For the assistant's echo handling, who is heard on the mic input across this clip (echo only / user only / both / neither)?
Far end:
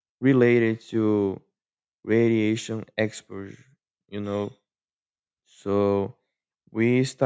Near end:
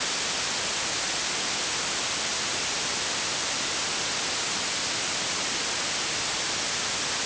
neither